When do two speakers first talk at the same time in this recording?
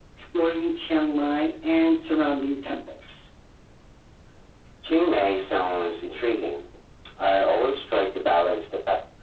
none

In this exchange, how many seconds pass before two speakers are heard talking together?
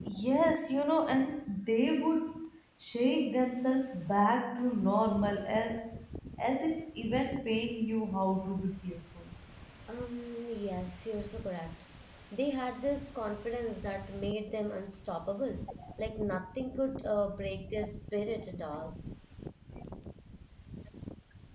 none

